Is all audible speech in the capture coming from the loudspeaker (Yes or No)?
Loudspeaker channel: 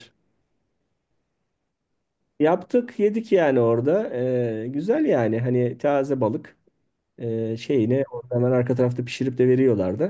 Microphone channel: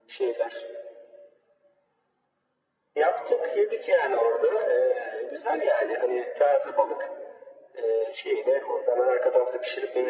Yes